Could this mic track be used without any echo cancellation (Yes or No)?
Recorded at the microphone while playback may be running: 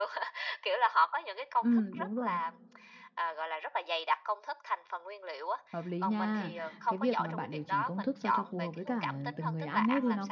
No